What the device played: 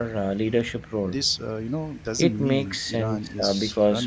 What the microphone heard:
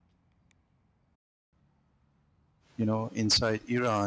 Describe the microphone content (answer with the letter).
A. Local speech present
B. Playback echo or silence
A